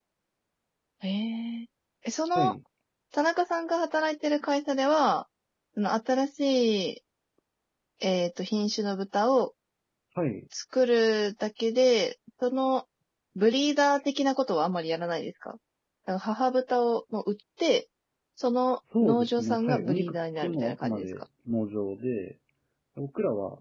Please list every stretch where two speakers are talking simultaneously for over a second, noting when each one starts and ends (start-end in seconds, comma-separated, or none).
19.0-21.1